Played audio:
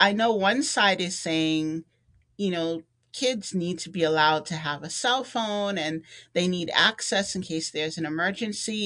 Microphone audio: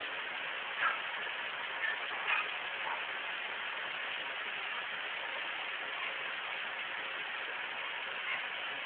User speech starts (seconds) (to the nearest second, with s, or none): none